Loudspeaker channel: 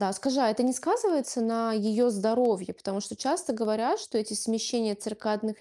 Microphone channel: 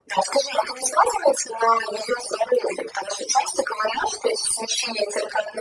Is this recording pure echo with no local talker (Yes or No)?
Yes